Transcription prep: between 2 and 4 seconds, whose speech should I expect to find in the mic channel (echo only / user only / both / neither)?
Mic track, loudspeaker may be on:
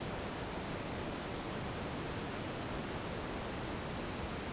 neither